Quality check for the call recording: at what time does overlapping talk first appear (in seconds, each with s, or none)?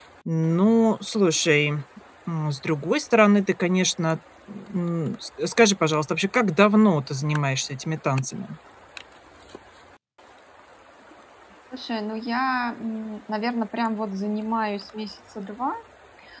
none